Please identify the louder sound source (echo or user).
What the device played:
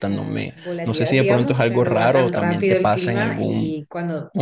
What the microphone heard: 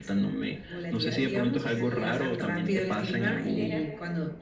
echo